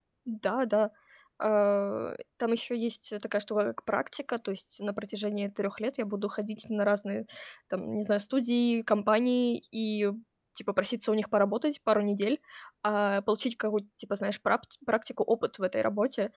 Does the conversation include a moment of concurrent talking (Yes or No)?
No